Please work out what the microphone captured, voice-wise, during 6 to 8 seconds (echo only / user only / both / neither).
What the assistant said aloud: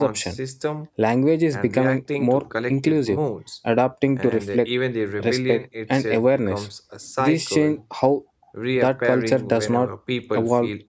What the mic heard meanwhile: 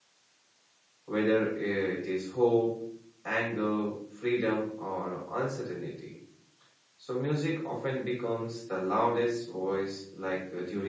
user only